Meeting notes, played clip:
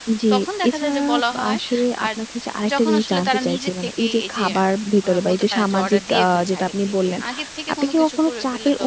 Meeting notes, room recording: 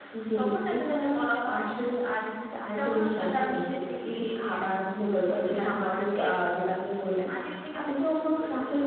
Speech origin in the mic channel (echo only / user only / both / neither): echo only